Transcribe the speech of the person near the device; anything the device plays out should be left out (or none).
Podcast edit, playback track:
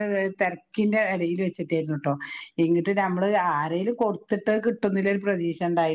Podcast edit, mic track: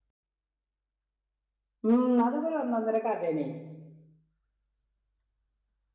ഉം അതൊക്കെ ഒരു ഒന്നൊന്നര കഫേണെ